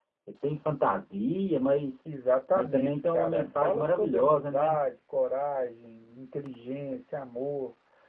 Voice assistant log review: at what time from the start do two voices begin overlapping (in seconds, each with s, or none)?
2.5 s